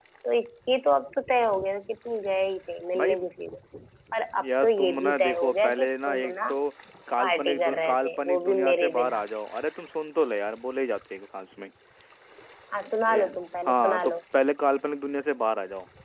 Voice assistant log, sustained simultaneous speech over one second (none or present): present